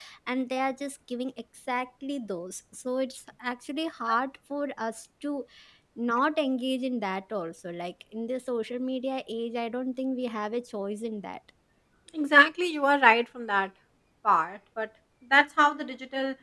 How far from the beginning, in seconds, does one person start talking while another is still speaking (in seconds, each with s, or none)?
none